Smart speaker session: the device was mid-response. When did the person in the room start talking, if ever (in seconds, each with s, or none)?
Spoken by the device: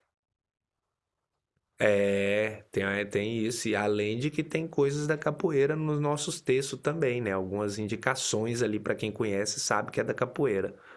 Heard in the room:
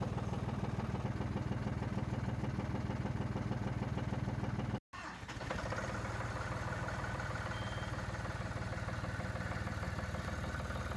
none